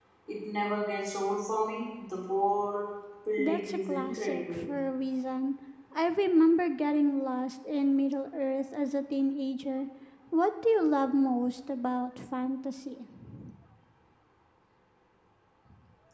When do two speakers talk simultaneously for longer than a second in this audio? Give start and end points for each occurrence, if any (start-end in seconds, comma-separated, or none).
3.4-4.6